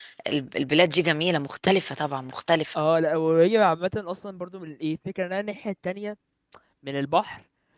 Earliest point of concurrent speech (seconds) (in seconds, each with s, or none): none